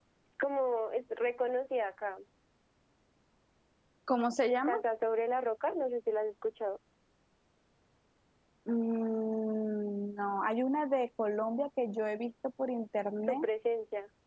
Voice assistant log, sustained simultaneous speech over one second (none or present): none